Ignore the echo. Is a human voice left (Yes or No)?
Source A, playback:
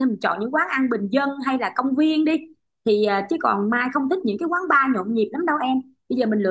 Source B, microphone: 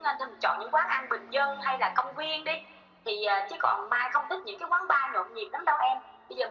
No